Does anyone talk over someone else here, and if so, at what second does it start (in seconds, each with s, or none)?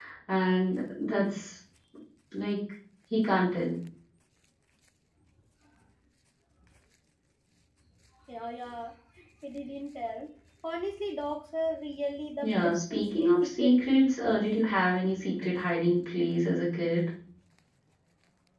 12.4 s